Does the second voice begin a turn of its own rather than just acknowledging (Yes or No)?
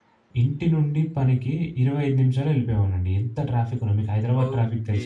Yes